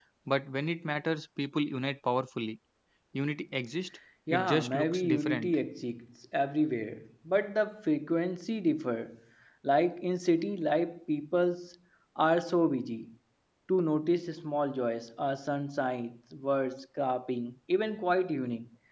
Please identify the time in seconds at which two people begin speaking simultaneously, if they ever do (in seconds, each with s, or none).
4.3 s